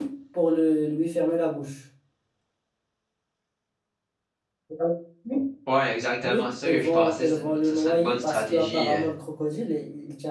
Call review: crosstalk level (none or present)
present